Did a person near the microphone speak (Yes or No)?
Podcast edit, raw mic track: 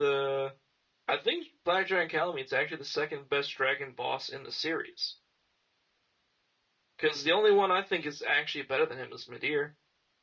Yes